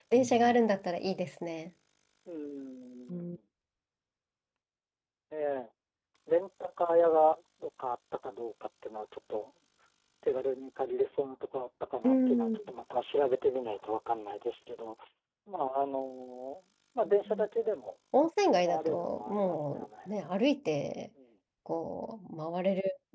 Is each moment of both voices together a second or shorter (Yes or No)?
No